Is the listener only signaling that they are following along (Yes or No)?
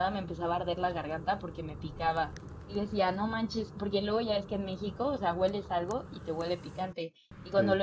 Yes